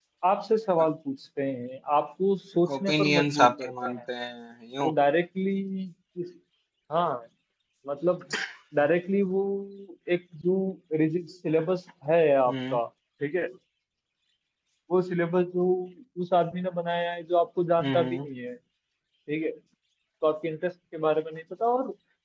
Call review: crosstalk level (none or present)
present